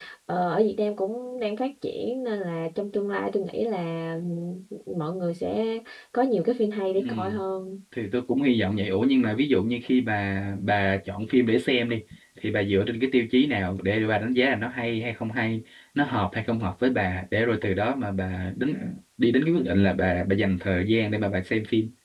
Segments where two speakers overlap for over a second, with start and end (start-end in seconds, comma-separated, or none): none